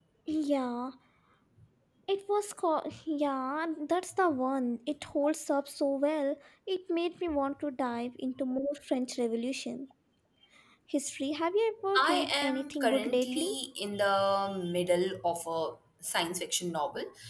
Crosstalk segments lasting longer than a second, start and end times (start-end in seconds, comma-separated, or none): 12.0-13.5